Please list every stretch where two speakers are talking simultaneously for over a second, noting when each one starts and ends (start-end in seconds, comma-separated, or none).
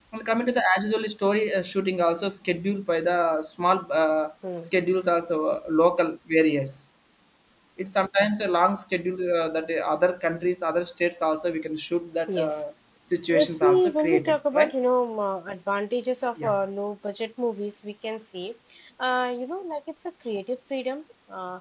13.4-14.7